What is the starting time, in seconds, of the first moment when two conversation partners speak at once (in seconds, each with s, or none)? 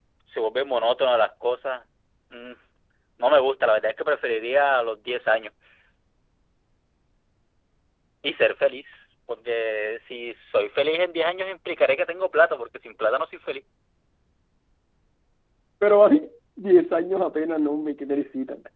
none